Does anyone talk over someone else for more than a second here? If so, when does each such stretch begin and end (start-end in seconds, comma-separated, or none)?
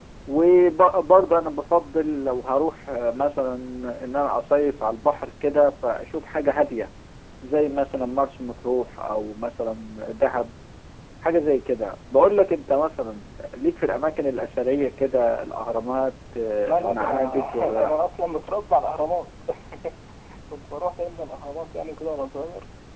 16.6-17.9